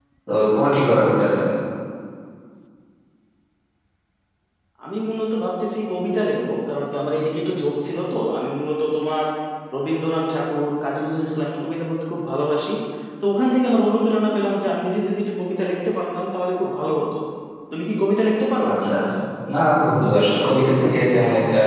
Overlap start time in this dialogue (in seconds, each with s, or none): none